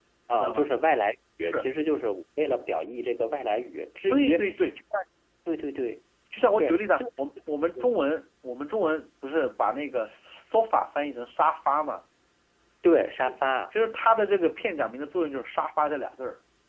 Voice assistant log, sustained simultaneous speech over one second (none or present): none